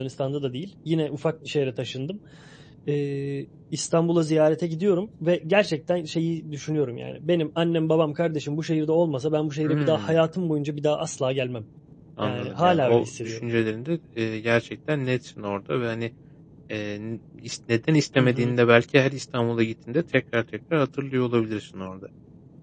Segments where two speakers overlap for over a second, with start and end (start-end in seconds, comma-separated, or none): 12.2-13.5